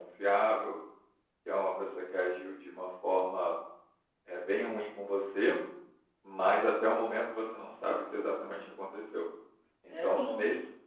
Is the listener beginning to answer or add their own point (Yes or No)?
Yes